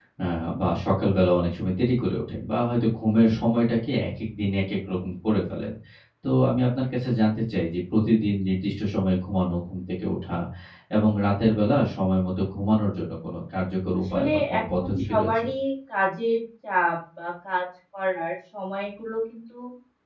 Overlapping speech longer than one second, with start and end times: 14.0-15.3

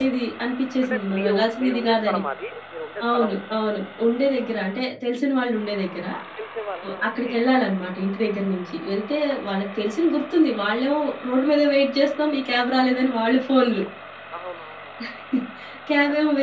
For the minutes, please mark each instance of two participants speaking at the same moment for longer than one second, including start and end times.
0.8-2.2

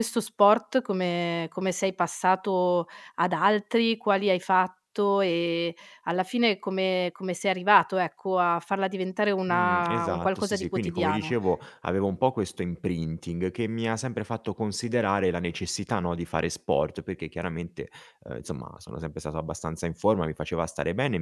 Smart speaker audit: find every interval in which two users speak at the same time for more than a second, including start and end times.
9.5-11.3

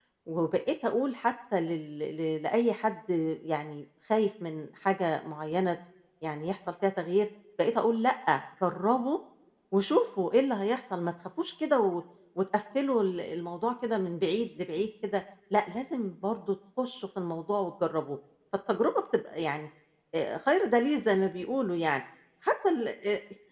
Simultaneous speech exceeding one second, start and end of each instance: none

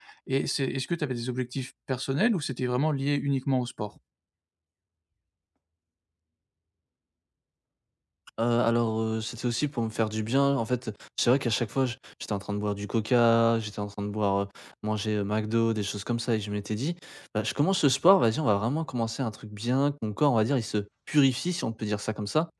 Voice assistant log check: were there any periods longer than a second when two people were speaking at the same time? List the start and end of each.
none

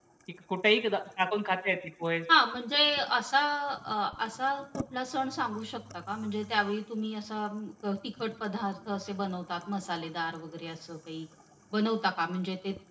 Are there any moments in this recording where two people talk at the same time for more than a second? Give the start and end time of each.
none

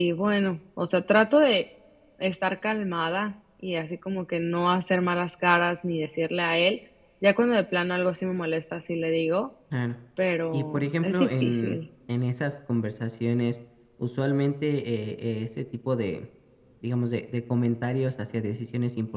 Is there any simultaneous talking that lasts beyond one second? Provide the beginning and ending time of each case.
10.5-11.8

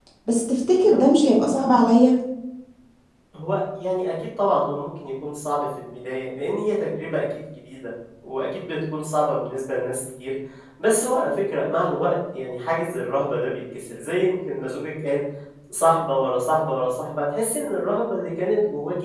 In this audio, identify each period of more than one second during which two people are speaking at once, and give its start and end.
none

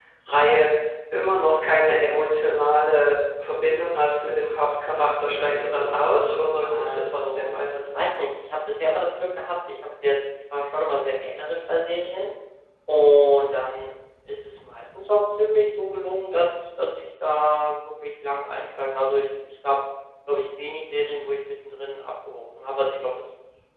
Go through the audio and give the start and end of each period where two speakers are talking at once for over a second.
5.3-7.5

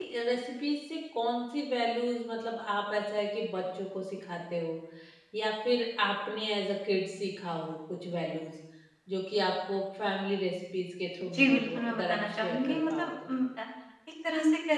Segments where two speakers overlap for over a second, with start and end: 11.3-13.3

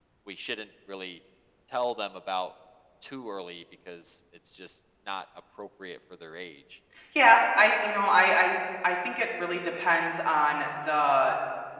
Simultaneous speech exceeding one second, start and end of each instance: none

